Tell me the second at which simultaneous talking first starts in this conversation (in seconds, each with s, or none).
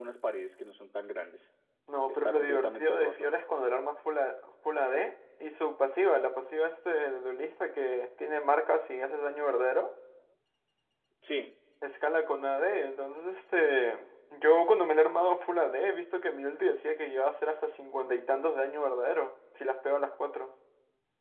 2.1 s